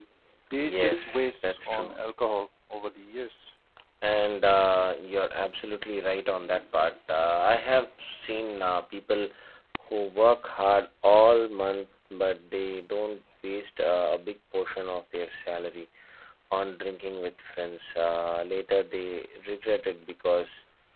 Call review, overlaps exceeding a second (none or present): present